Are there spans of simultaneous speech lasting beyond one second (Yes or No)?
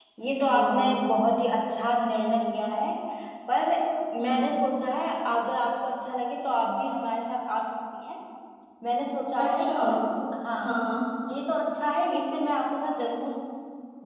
No